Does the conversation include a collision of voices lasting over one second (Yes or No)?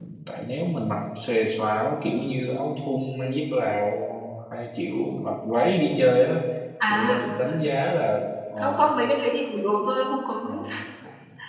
No